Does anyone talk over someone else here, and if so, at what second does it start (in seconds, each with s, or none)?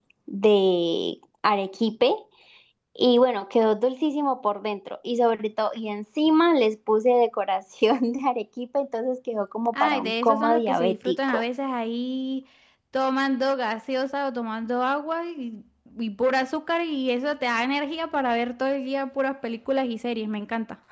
9.7 s